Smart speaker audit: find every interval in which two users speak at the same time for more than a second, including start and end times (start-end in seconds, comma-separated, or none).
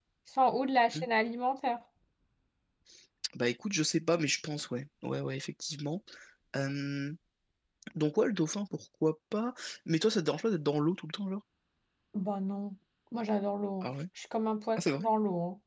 none